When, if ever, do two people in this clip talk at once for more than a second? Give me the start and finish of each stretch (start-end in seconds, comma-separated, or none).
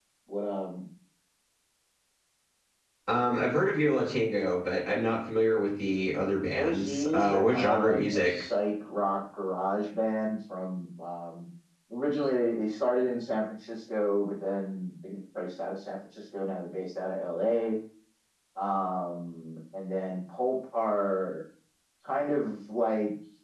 6.6-8.3